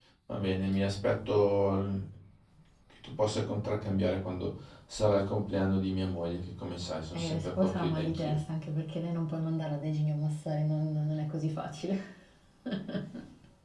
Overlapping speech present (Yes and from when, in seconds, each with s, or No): Yes, from 7.1 s